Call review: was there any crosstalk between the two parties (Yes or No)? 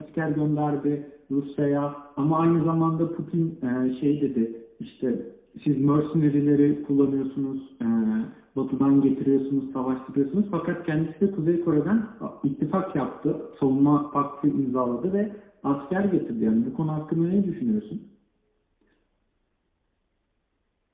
No